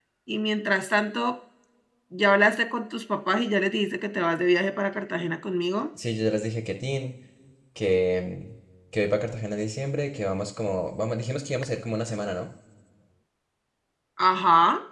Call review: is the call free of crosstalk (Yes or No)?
Yes